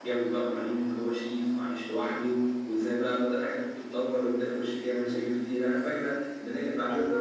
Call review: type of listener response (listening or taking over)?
taking over